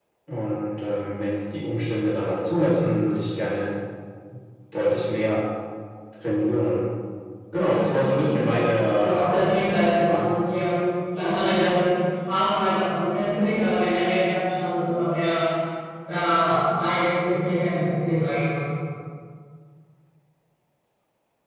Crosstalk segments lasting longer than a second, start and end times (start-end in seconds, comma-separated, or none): 9.0-10.2